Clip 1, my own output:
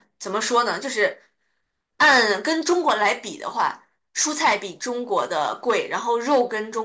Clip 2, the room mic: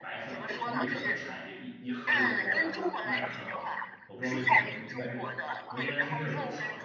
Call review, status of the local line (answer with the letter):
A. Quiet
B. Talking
B